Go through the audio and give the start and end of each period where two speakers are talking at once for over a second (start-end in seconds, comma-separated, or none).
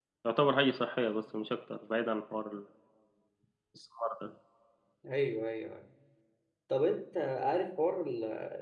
none